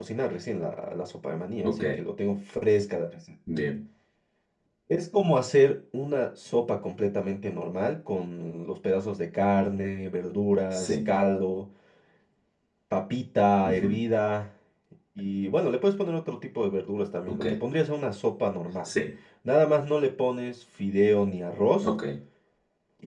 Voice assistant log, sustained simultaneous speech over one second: none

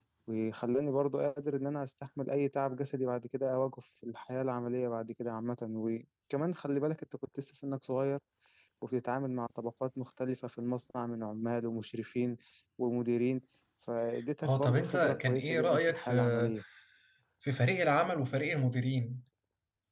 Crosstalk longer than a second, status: present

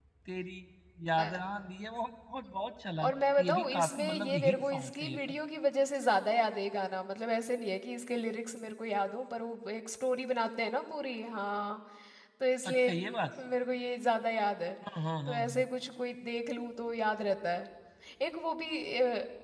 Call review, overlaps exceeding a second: present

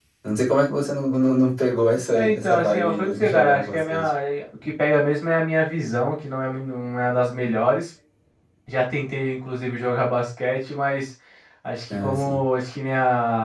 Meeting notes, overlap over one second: present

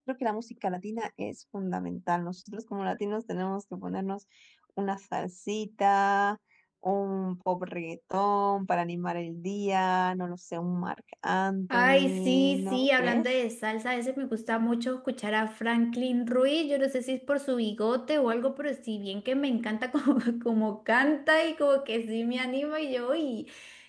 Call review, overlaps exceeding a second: present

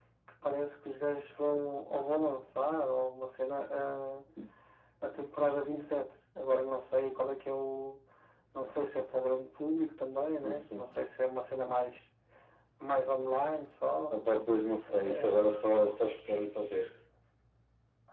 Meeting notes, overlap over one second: none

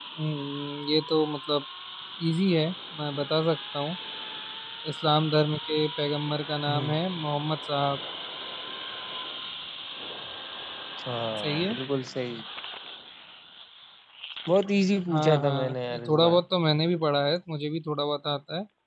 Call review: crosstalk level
present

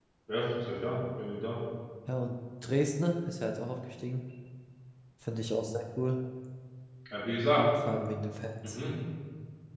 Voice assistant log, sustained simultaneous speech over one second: none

